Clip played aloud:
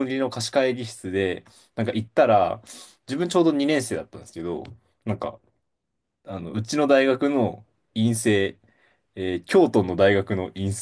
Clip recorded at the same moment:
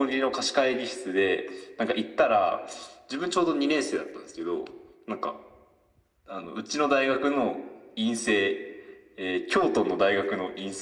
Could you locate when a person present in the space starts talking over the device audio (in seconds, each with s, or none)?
none